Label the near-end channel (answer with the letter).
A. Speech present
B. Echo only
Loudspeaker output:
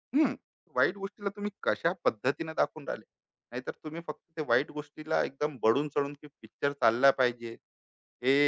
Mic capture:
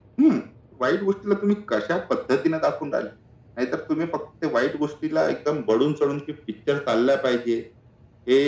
B